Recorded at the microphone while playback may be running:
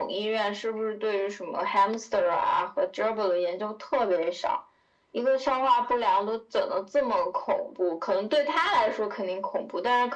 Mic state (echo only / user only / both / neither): echo only